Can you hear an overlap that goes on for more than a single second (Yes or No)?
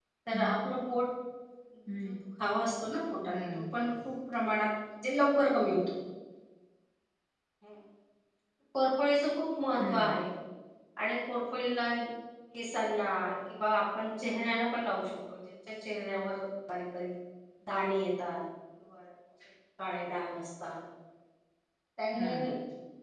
No